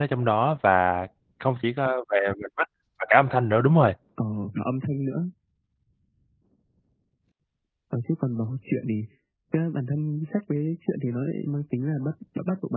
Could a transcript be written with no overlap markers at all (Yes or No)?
Yes